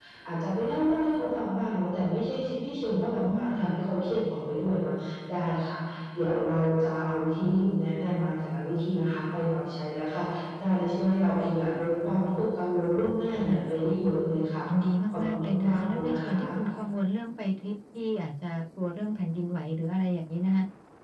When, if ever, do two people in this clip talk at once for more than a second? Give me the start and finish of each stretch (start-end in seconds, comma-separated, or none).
15.1-16.4